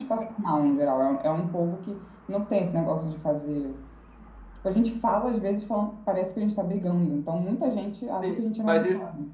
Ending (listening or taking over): taking over